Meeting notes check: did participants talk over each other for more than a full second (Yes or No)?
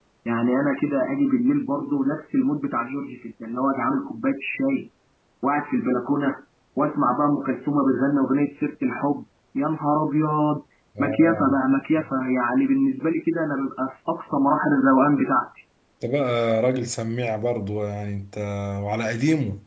No